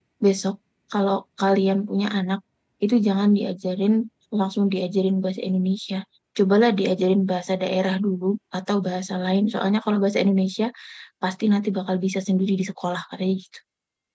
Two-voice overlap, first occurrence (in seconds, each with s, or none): none